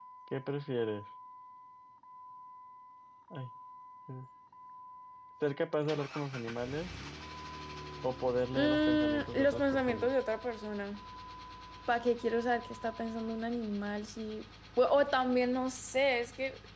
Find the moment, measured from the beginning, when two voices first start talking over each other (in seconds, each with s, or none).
8.5 s